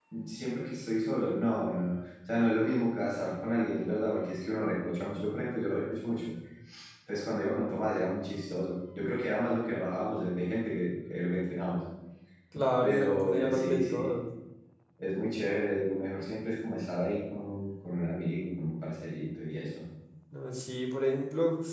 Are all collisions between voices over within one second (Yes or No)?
No